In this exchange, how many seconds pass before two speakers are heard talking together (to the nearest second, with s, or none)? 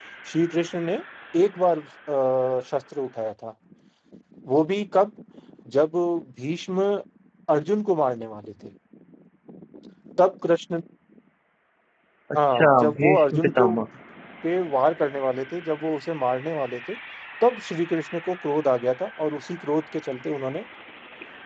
13 s